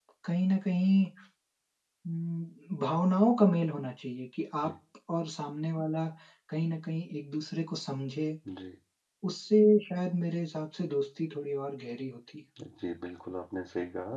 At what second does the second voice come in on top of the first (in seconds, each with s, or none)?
none